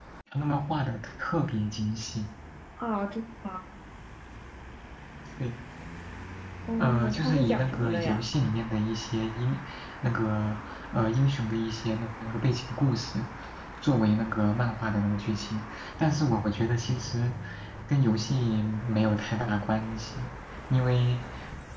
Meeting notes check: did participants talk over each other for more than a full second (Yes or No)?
Yes